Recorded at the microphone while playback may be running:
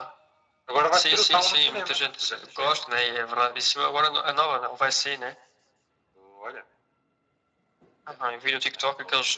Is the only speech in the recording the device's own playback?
Yes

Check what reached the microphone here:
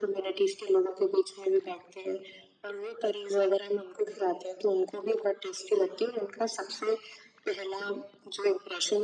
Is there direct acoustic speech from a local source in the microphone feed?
No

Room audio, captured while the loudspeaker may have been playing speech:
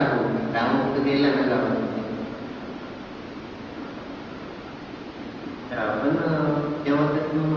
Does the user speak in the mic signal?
No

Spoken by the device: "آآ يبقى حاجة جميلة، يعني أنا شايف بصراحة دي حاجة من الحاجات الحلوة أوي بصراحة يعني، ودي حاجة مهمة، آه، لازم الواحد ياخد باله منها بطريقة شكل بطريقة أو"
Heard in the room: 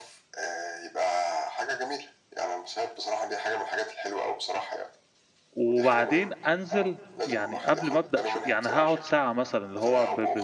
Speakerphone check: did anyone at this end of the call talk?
Yes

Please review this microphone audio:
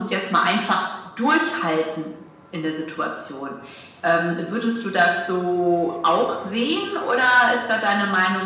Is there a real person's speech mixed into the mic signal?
No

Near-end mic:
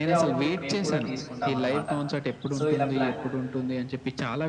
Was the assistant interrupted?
Yes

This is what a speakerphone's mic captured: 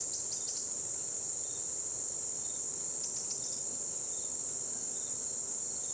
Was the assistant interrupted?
No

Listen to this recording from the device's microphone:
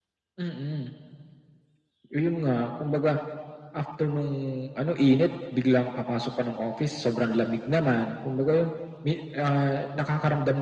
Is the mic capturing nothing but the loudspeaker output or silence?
Yes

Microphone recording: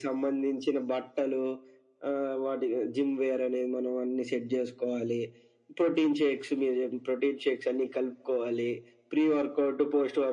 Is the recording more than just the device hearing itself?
No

